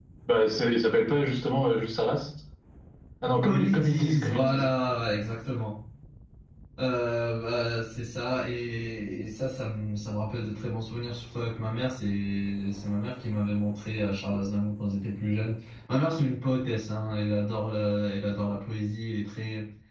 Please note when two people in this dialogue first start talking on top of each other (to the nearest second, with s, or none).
3 s